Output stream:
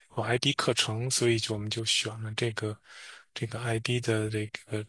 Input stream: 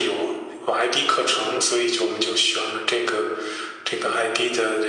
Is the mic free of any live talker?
No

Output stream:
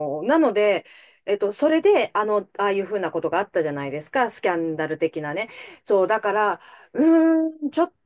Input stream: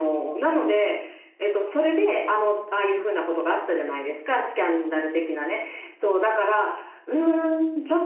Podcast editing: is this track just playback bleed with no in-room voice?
Yes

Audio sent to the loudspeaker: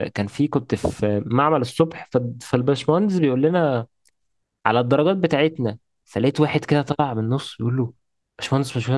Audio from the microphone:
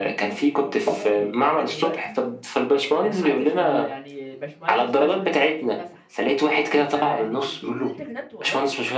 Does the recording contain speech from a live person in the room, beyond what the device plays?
Yes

